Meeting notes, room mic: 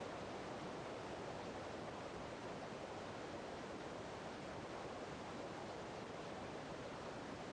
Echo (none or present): none